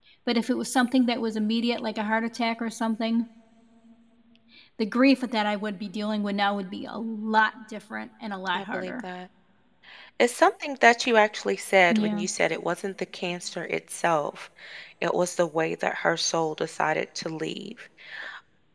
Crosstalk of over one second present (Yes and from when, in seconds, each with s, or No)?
No